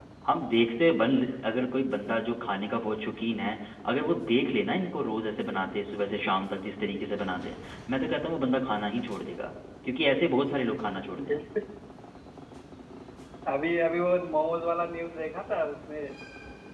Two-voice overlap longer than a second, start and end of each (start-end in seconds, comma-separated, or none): none